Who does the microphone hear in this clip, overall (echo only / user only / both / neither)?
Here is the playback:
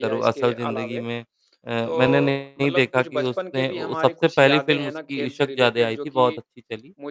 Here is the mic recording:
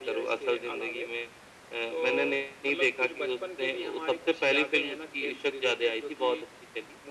echo only